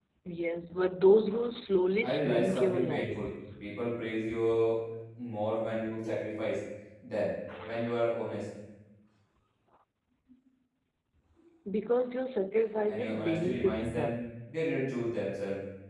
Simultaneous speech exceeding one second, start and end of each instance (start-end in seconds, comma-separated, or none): 2.1-3.3, 12.8-14.2